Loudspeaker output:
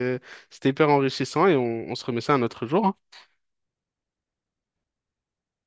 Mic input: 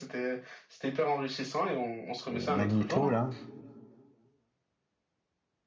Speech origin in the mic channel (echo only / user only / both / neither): both